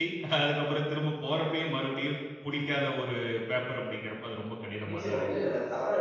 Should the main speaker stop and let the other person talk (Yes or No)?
Yes